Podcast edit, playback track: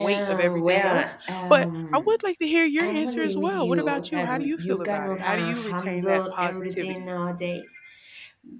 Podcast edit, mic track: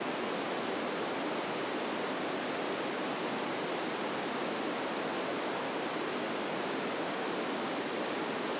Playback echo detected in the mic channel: No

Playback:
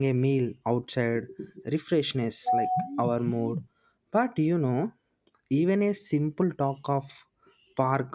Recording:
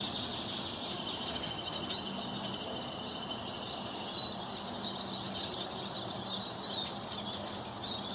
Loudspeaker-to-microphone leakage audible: No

